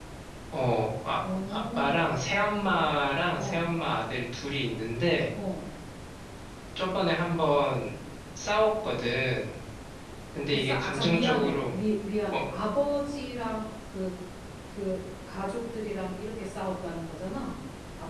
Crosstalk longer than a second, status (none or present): present